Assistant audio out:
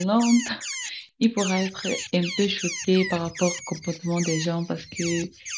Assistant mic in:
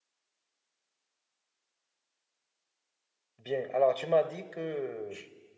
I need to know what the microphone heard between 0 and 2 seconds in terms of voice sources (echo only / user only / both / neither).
neither